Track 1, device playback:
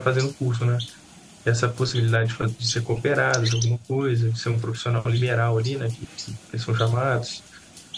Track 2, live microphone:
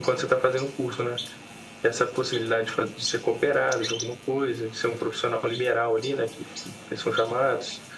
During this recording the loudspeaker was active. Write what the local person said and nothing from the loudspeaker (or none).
none